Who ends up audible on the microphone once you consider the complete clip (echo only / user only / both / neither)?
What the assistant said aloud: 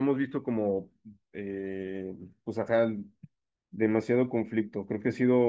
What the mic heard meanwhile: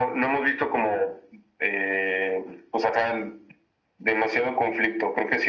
echo only